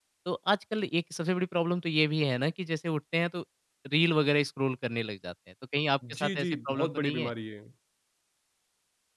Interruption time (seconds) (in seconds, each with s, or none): 6.0 s